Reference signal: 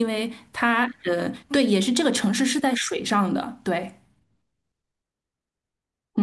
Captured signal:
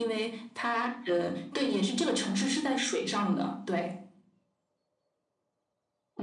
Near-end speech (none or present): none